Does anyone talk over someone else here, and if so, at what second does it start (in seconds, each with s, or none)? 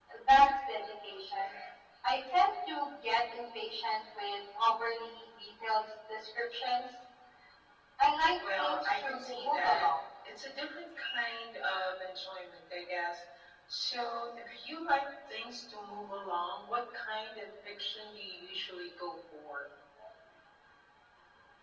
8.6 s